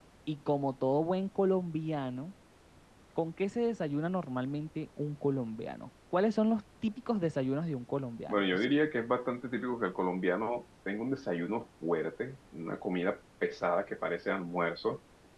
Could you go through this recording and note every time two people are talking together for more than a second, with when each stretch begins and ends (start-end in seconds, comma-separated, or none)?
none